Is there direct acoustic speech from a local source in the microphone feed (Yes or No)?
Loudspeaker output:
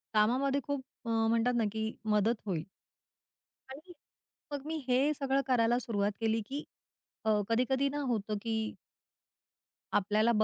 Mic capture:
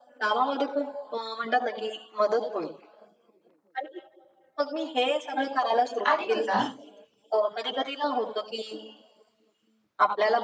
Yes